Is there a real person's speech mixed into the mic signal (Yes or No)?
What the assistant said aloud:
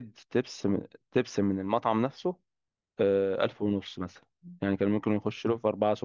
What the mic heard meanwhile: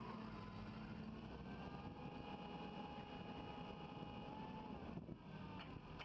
No